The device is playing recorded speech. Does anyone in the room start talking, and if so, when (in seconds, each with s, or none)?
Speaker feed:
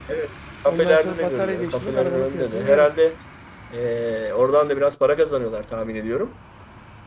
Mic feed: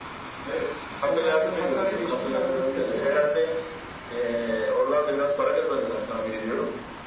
none